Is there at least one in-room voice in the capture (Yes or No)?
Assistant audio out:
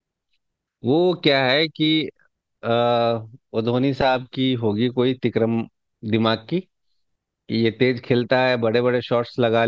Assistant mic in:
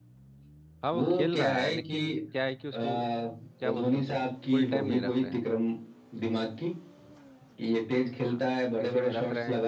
Yes